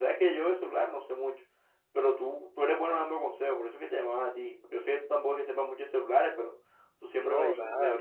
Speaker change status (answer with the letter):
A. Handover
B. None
B